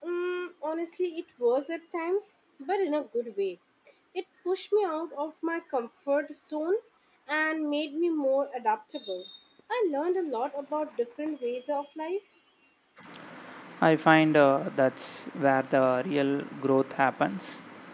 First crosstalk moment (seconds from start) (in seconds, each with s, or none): none